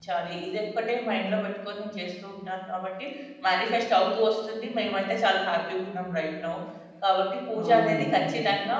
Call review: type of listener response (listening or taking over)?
listening